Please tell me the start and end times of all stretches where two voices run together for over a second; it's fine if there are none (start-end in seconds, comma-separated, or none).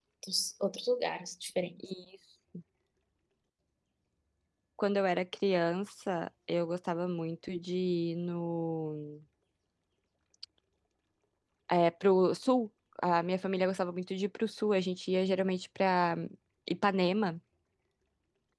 none